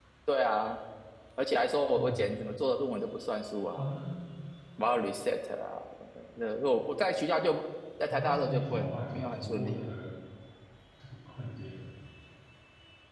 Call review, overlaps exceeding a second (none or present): present